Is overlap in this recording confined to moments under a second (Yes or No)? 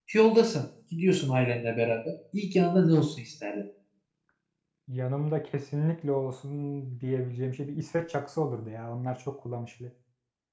Yes